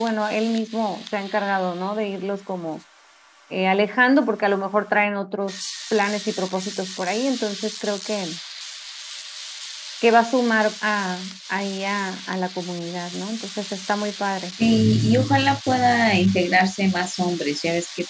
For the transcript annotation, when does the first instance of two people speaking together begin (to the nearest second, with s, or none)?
none